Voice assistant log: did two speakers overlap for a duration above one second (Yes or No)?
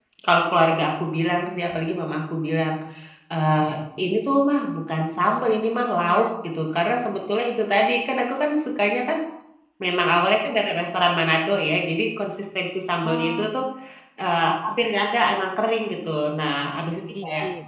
No